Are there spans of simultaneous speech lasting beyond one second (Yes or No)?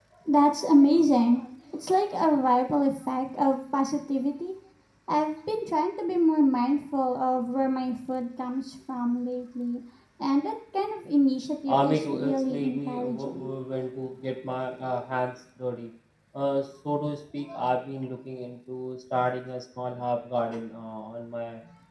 Yes